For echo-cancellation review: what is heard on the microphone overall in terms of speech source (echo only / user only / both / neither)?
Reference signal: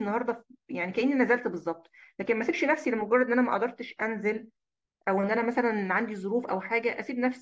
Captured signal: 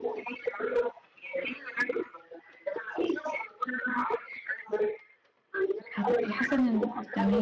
both